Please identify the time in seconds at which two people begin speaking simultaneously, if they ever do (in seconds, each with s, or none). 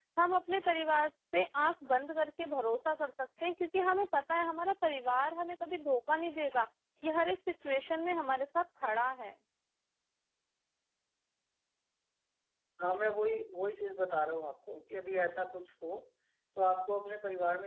none